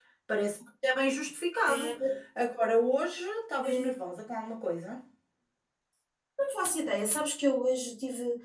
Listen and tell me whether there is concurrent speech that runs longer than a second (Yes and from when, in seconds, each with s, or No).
No